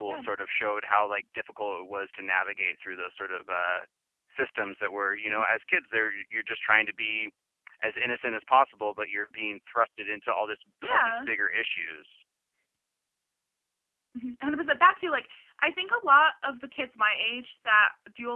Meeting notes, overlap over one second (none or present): none